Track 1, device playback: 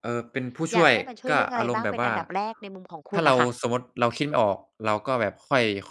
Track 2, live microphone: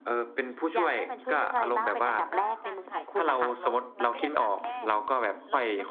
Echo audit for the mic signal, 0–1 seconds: echo only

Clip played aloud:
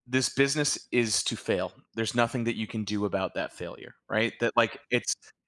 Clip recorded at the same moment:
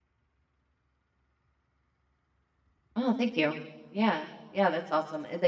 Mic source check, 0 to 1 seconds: neither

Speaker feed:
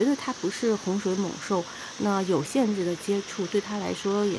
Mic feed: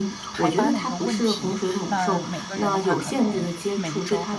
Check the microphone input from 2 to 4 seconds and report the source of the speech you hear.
both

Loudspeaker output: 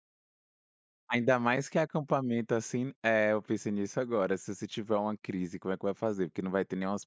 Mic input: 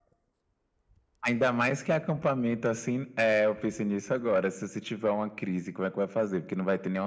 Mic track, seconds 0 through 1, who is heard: neither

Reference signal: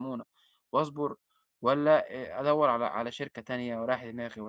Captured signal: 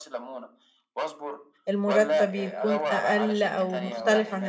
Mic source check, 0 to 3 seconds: both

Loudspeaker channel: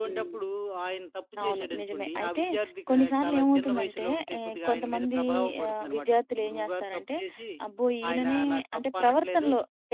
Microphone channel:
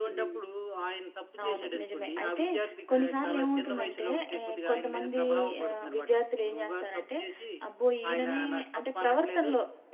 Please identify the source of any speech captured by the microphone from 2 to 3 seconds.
echo only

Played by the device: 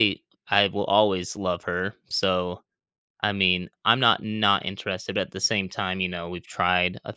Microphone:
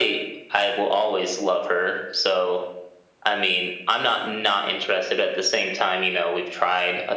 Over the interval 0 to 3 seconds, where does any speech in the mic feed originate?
echo only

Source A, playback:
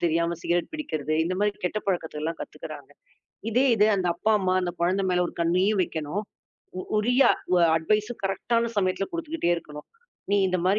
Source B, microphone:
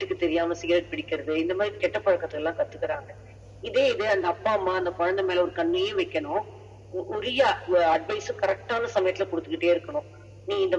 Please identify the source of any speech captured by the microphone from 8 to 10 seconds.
echo only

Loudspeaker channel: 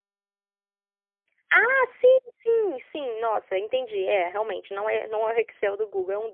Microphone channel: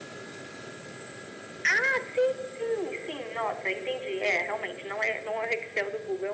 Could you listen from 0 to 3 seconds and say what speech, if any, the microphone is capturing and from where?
echo only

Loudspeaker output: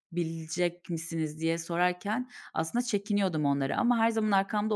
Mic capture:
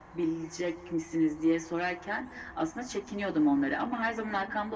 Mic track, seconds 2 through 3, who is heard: echo only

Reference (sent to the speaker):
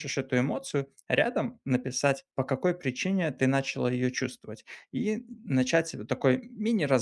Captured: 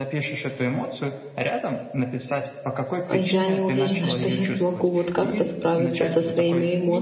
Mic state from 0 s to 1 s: echo only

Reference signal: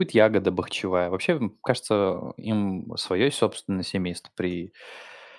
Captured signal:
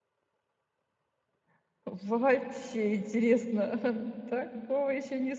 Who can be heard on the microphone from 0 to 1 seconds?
neither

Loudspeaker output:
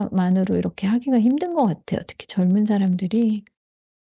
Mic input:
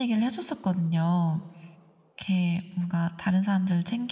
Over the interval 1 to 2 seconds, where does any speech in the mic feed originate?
user only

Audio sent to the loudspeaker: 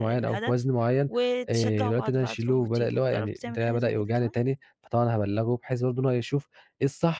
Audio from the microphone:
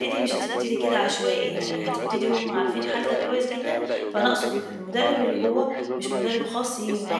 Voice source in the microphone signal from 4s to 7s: both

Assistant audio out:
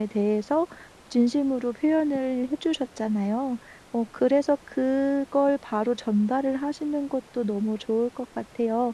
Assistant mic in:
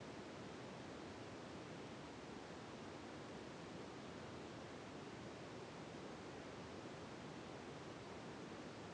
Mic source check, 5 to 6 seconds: neither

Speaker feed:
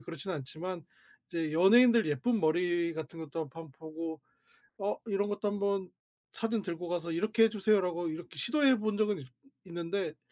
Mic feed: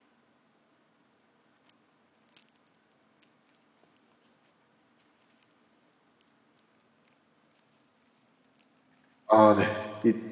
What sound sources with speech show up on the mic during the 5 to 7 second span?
neither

